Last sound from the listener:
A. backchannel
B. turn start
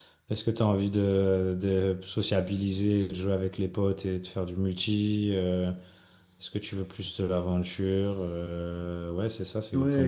B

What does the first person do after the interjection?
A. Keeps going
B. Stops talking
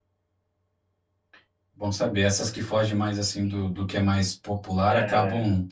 A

